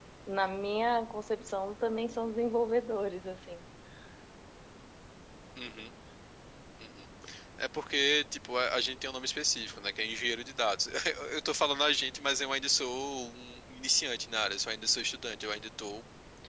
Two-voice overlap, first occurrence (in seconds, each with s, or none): none